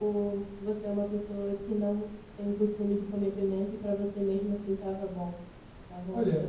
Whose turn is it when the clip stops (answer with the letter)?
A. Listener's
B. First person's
A